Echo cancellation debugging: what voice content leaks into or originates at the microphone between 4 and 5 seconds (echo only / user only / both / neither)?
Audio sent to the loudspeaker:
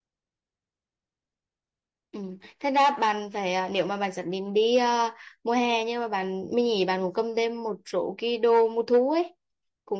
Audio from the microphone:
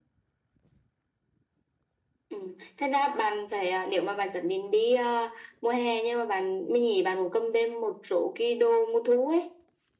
echo only